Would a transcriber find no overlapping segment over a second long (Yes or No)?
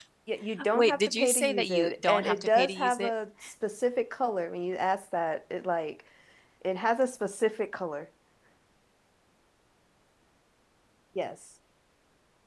No